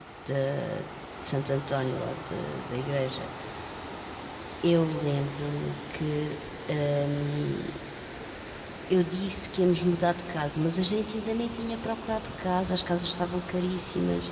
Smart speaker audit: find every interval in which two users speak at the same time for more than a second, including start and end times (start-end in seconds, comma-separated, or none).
none